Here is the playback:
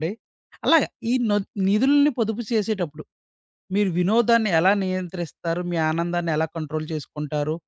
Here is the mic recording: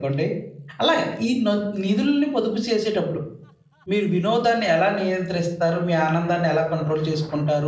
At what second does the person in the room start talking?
none

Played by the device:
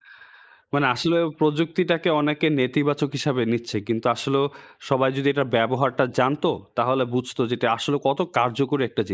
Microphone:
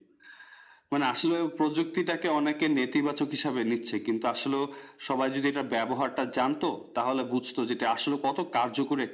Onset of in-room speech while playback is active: none

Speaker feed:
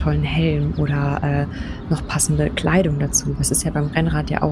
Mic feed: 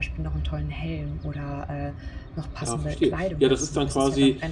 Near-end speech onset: 2.6 s

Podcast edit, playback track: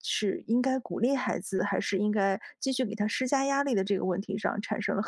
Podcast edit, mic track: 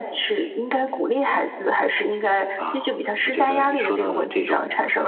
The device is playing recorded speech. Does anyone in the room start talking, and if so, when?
2.5 s

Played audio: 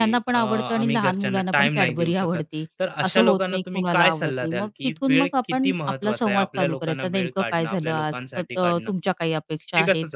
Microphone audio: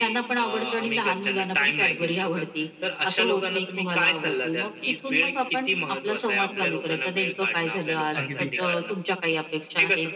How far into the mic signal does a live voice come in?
8.1 s

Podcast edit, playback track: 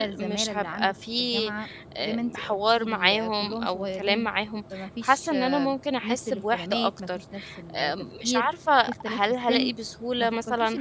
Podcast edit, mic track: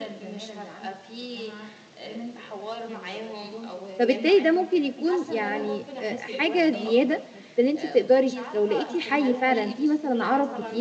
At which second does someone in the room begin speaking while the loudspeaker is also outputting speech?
4.0 s

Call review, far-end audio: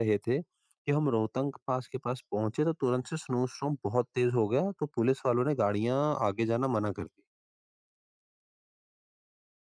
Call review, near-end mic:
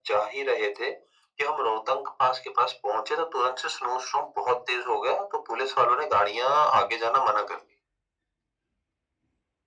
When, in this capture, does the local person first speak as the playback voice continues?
none

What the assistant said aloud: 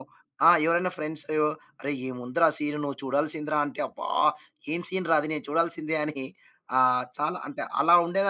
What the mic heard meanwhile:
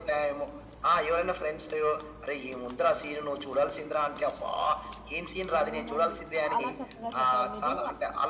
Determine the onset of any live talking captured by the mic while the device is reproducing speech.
5.6 s

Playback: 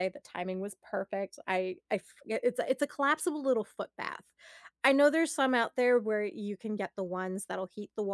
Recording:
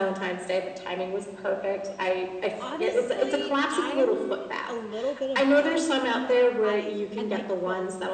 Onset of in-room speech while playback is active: 2.6 s

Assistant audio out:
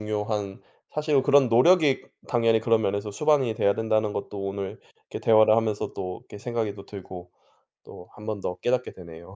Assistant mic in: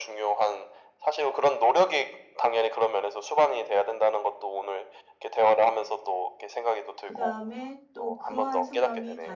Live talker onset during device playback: 7.0 s

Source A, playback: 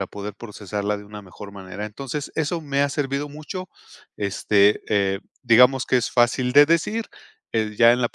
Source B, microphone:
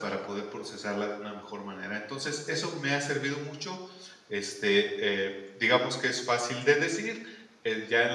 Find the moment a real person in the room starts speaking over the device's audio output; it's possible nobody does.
none

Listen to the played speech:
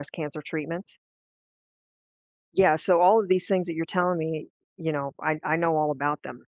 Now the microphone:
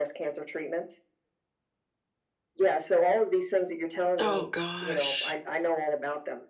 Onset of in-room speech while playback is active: 4.2 s

